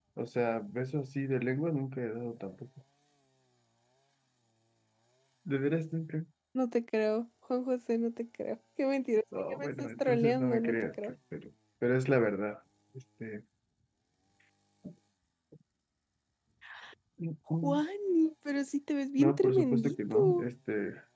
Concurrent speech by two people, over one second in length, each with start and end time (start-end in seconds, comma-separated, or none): 9.5-11.1, 19.2-20.4